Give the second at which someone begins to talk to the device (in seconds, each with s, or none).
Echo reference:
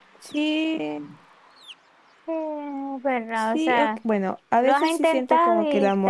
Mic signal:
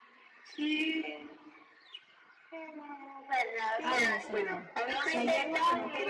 3.8 s